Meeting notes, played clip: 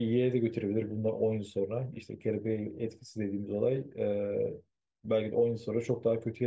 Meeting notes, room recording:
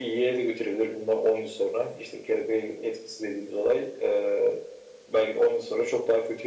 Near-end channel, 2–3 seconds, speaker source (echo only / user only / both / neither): echo only